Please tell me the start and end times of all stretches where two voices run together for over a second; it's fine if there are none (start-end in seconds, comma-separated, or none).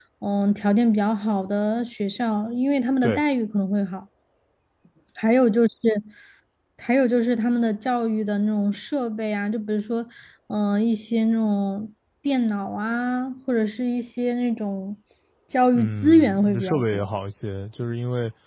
15.7-17.1